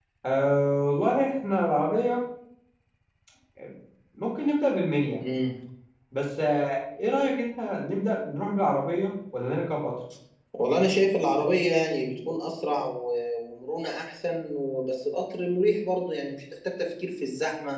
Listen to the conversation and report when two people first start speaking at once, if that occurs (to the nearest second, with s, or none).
none